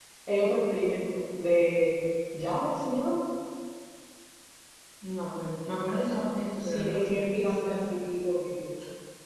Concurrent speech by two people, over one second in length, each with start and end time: 6.6-8.1

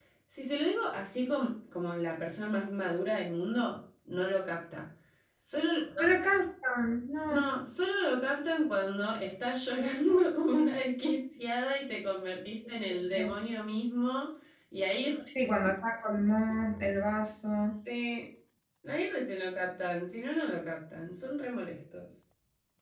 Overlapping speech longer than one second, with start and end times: none

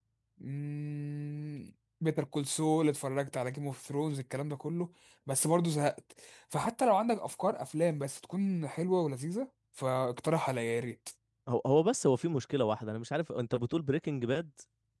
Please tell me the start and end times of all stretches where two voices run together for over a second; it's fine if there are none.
none

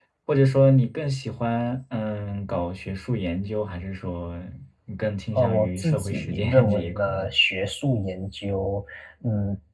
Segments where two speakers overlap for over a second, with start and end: 5.4-7.3

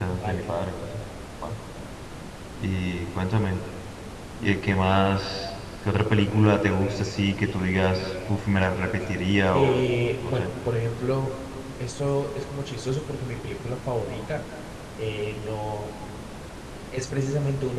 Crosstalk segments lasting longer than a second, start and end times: none

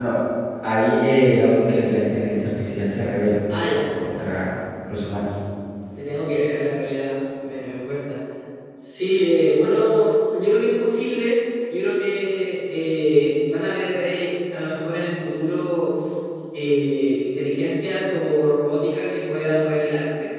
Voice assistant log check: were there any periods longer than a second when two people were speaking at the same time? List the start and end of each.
none

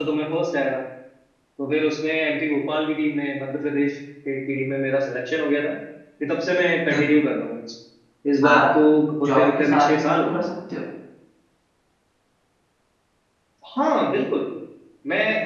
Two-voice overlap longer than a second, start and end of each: 9.2-10.4

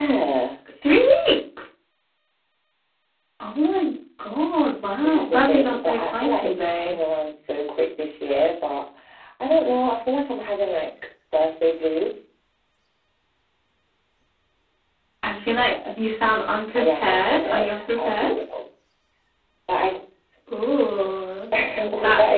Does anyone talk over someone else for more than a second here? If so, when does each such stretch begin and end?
5.0-6.9, 16.8-18.3

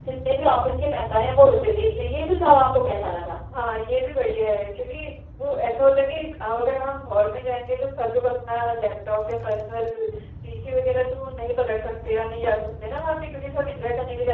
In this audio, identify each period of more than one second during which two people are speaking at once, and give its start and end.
none

